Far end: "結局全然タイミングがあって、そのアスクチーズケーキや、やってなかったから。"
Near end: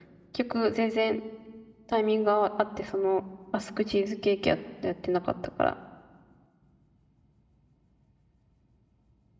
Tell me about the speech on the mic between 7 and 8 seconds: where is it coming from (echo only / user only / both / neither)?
neither